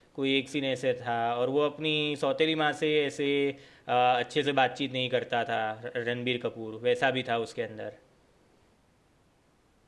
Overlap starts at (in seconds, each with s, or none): none